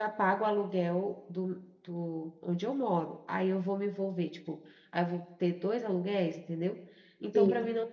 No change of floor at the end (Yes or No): Yes